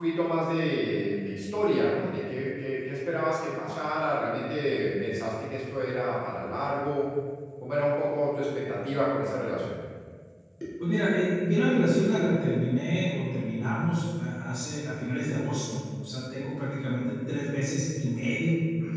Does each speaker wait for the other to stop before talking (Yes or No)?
Yes